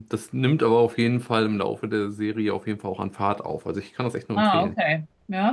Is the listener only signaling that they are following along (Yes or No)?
No